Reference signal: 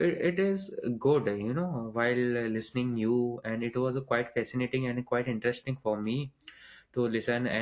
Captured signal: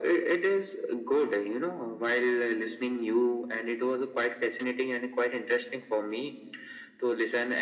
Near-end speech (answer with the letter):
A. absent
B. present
A